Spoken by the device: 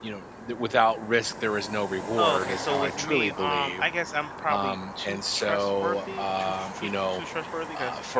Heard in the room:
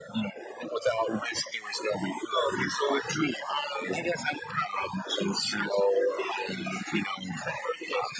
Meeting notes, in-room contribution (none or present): none